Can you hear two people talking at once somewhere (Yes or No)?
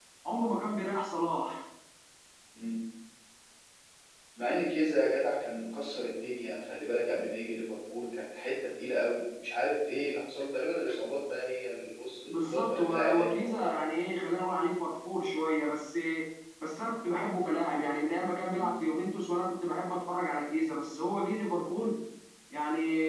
Yes